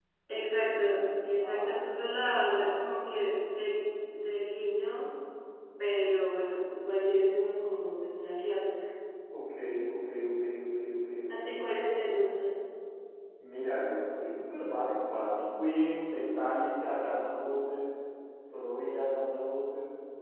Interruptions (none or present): present